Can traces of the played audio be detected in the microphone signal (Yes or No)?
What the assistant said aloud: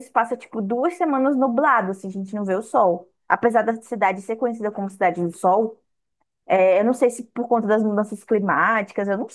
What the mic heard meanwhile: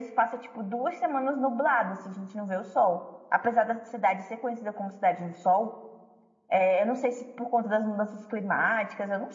Yes